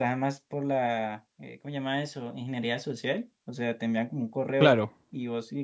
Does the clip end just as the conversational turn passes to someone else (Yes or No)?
No